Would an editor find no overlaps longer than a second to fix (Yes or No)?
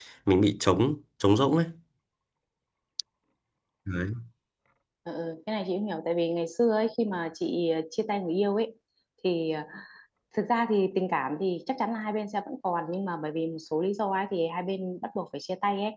Yes